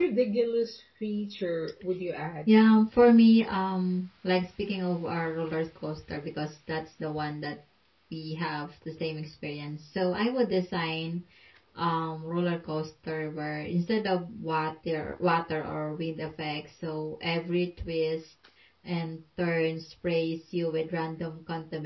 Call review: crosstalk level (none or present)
none